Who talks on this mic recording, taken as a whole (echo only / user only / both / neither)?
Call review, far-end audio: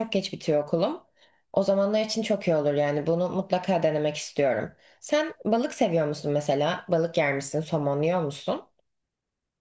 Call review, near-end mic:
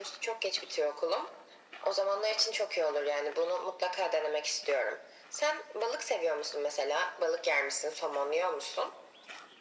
echo only